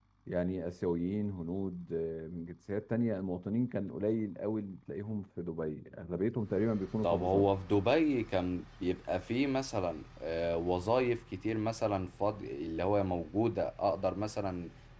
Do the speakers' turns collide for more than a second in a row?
No

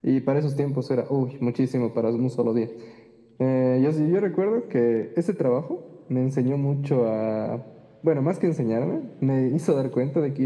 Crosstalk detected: No

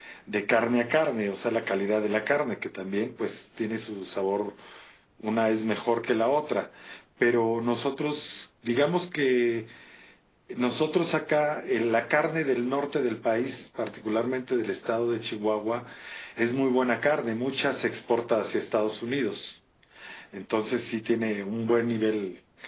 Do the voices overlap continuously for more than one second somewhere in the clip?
No

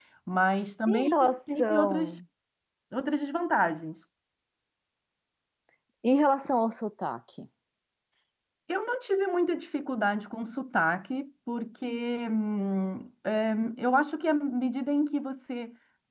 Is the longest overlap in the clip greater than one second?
Yes, from 0.9 s

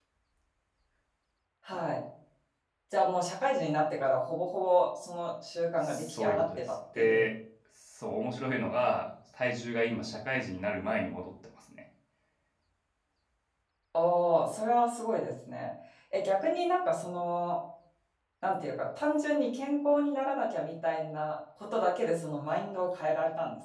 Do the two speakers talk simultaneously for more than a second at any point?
Yes, from 5.8 s

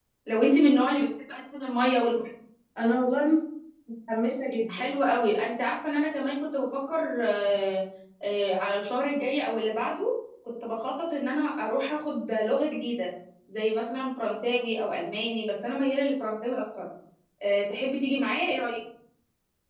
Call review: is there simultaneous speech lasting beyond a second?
No

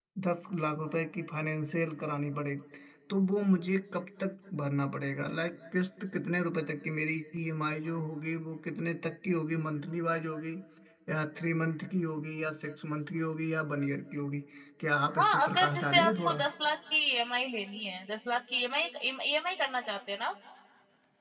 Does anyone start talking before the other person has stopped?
Yes, from 15.2 s

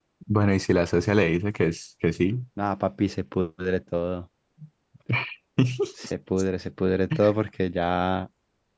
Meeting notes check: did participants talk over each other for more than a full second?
No

